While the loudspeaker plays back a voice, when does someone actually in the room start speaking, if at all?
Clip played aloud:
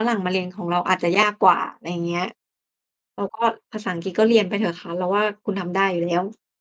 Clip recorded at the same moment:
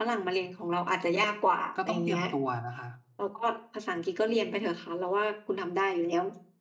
1.7 s

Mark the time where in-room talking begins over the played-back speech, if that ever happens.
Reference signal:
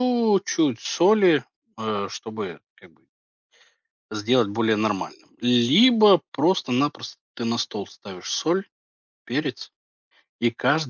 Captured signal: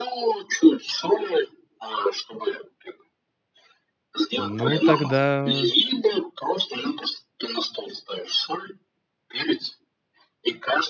4.5 s

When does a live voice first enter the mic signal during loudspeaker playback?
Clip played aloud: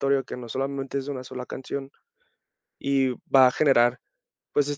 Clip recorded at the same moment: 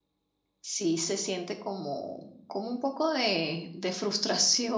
0.6 s

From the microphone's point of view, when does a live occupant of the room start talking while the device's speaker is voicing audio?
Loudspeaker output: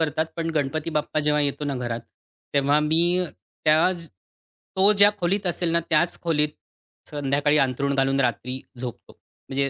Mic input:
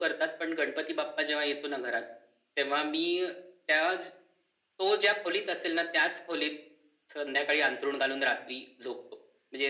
none

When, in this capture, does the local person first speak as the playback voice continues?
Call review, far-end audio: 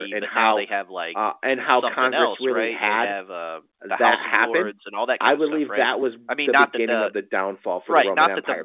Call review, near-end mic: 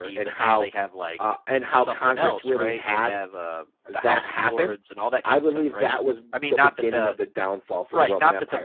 none

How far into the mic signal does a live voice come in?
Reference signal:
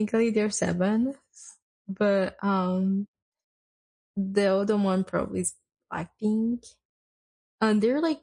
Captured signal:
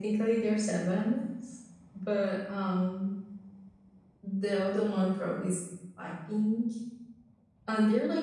none

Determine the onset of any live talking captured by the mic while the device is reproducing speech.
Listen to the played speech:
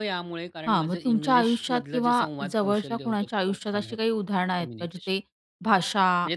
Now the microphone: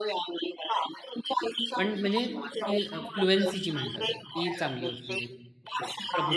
1.8 s

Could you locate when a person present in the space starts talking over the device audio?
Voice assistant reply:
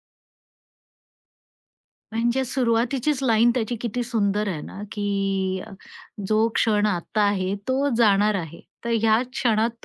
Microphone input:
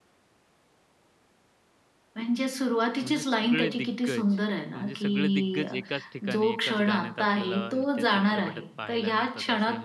3.0 s

